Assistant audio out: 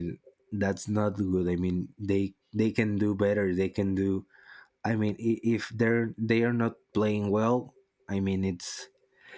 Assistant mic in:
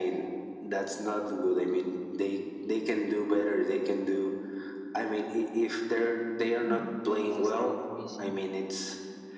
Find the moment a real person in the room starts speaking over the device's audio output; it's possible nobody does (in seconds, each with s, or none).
6.5 s